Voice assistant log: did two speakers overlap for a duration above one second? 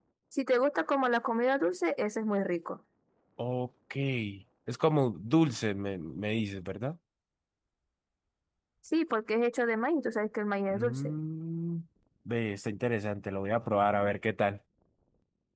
No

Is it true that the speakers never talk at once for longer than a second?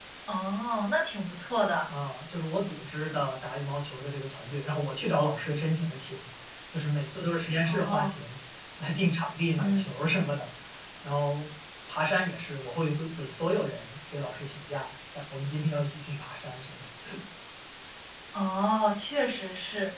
Yes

